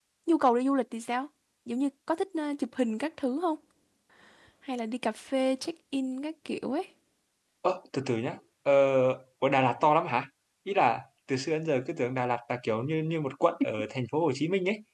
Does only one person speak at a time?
Yes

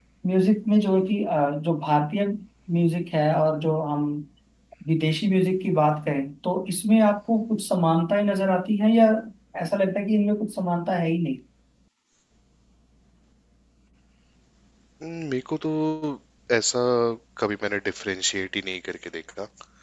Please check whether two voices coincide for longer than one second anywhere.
No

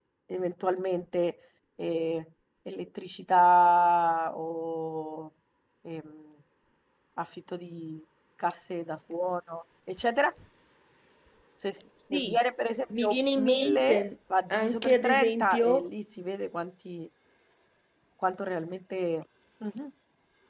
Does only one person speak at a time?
No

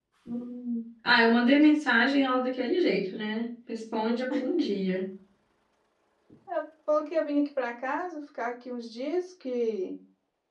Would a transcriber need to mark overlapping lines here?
No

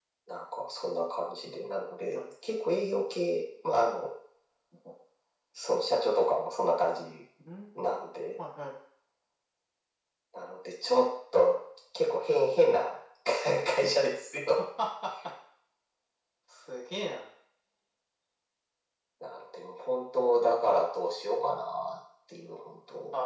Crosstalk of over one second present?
No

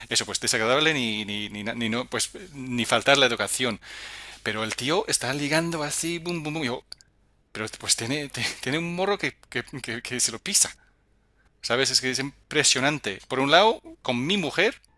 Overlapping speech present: No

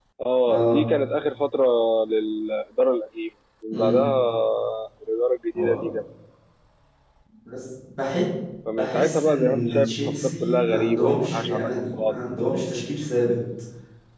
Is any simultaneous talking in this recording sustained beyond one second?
Yes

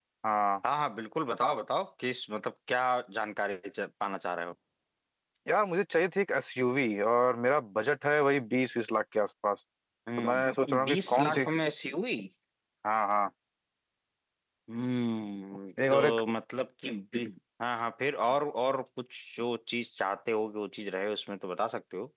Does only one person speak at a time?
No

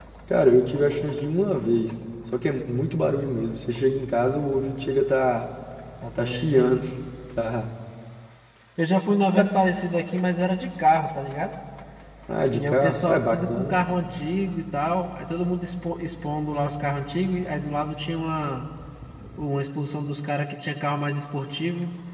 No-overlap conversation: No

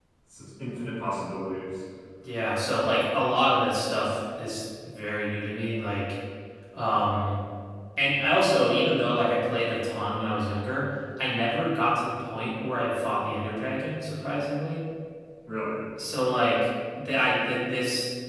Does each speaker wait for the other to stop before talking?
Yes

